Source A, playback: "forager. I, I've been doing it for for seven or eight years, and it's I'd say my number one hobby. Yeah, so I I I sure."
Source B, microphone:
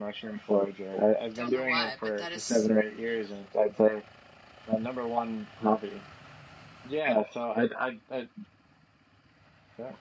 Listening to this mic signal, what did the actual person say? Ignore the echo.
don't know why, but that is

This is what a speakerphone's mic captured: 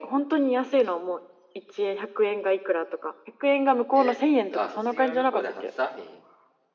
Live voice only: え、あ、卒業旅行で初サーフィン

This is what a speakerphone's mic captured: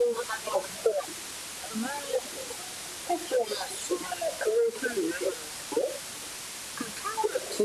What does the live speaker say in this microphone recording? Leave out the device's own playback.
none

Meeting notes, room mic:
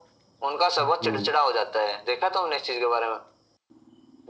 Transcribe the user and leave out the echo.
हम्म,

